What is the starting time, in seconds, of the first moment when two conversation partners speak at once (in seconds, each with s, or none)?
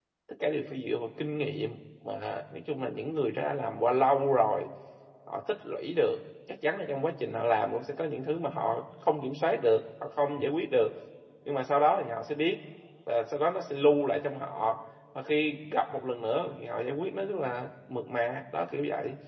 none